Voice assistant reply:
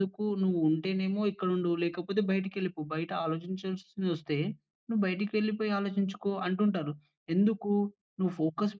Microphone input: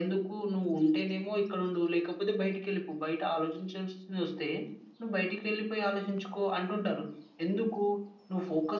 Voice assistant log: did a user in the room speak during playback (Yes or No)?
No